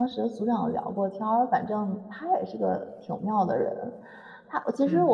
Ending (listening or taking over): listening